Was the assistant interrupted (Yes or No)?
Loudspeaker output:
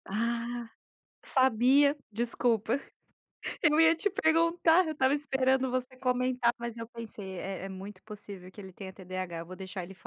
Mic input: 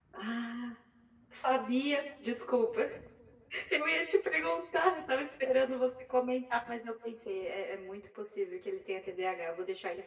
No